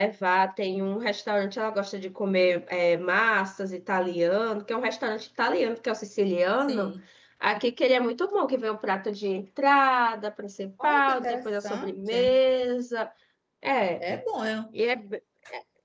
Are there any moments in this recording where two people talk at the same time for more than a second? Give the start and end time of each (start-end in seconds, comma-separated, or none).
10.8-12.4